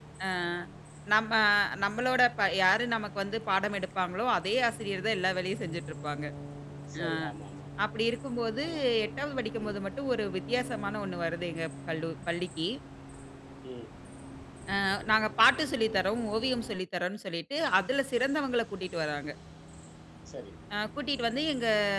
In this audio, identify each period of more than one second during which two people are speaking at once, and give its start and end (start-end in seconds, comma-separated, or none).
none